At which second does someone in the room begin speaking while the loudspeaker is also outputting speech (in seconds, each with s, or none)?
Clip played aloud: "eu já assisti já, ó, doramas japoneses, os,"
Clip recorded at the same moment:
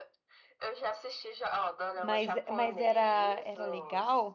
1.9 s